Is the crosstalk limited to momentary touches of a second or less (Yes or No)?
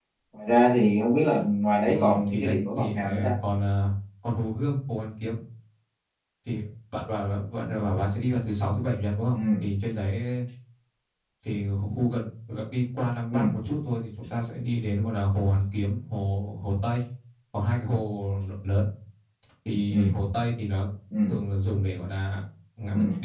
No